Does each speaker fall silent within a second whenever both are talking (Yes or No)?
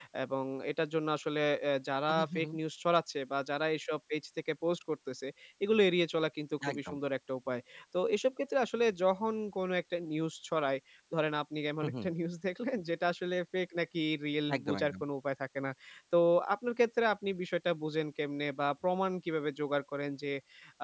Yes